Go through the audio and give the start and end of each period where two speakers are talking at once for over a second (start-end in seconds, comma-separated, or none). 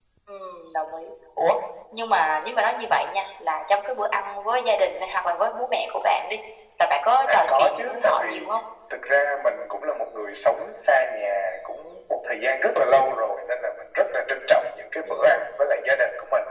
7.3-8.5